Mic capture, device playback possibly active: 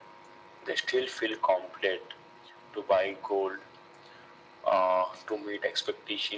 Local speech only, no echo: none

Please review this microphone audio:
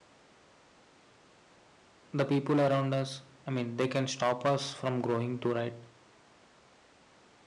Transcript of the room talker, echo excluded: the people around us, I mean, they can stop us from growing too, right?

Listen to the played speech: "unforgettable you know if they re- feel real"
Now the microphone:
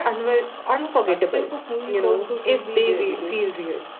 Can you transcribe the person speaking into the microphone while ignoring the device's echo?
So such type of movies also should be there because

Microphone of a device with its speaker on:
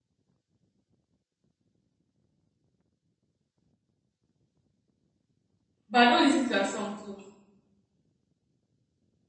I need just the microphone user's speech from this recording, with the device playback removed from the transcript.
but i don't listen to her song too

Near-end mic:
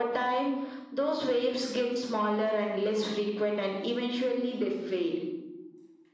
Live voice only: none

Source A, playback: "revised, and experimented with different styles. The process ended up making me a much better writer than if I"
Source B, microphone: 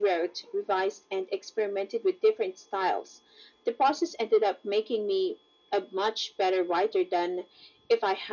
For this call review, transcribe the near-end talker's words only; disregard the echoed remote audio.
none

